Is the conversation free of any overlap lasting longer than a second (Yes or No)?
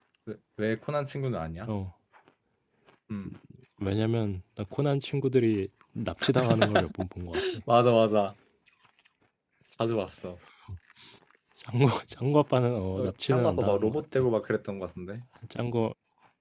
No